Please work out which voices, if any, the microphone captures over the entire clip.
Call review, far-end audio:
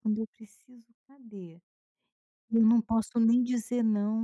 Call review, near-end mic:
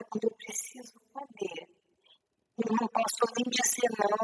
echo only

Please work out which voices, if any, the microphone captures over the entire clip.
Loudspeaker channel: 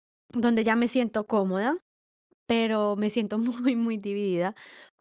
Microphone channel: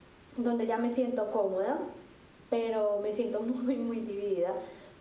echo only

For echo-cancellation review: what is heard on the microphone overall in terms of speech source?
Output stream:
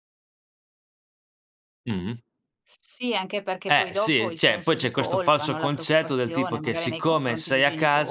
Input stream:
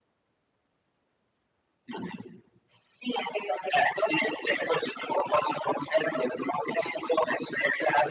echo only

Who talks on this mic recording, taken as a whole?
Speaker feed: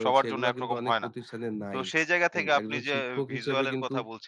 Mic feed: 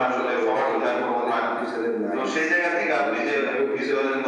echo only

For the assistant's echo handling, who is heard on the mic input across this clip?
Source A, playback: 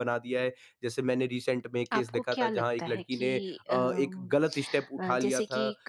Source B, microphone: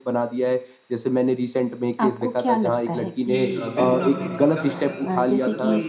both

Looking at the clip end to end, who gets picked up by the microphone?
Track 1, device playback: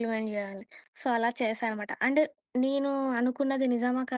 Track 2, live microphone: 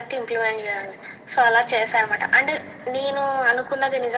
echo only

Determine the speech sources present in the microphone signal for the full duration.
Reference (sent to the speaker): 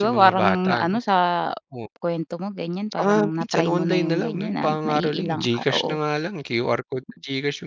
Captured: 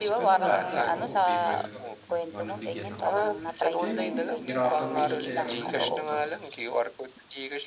both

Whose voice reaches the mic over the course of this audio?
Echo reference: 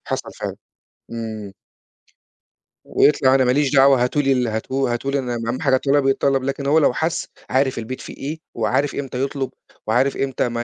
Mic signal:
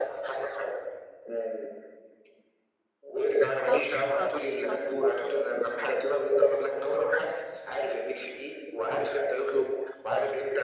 both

